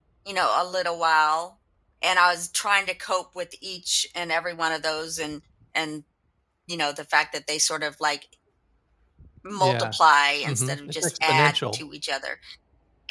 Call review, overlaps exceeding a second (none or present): present